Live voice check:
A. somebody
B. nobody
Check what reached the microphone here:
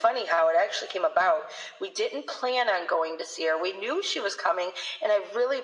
B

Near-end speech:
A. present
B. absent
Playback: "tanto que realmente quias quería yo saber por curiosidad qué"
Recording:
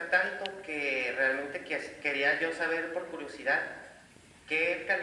B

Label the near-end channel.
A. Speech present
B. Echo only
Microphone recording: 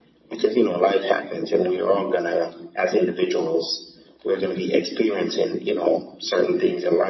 B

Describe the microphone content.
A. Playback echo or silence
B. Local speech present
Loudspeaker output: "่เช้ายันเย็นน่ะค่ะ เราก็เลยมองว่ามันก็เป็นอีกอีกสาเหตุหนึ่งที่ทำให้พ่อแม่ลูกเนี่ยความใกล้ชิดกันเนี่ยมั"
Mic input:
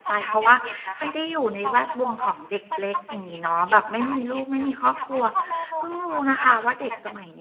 B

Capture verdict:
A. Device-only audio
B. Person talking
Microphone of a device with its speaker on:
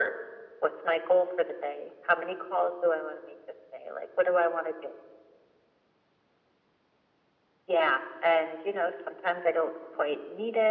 A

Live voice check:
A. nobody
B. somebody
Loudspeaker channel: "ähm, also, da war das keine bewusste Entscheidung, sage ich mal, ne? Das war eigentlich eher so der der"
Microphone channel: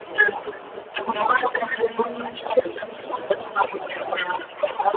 B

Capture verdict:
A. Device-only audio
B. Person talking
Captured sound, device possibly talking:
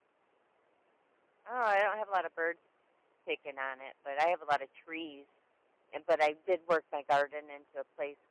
B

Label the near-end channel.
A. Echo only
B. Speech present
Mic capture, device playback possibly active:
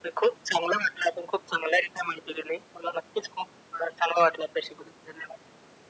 A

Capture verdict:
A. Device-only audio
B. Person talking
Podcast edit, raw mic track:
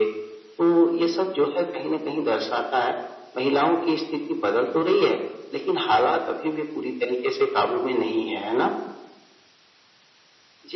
A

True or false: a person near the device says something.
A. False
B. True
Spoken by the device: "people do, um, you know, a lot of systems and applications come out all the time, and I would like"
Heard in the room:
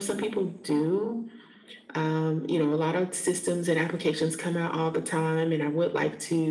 A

